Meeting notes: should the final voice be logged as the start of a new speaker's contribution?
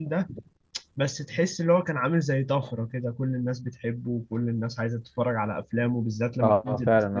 Yes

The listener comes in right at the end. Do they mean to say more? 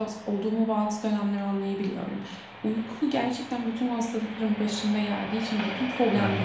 No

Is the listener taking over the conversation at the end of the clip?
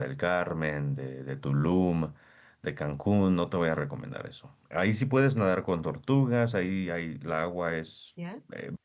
No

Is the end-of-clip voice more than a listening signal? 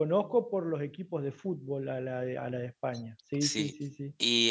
Yes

